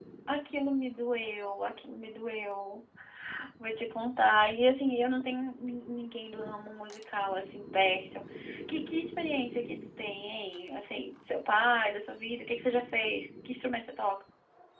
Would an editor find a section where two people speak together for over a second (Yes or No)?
No